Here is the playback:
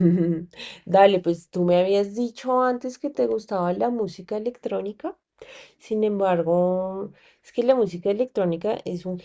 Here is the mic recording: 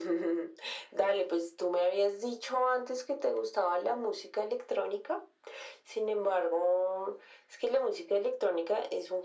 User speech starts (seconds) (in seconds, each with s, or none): none